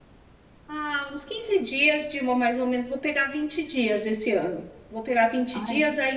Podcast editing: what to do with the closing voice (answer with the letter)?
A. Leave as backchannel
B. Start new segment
A